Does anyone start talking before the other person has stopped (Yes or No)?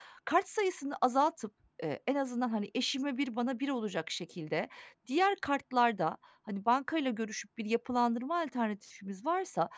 No